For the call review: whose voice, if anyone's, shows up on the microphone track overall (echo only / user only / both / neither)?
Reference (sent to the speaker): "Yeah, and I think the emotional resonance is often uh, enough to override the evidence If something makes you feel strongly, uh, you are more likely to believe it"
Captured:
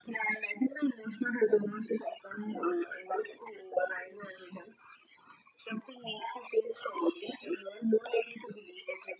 echo only